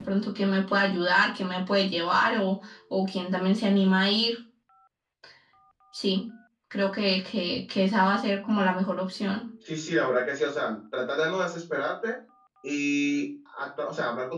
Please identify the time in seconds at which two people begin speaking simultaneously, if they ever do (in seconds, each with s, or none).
none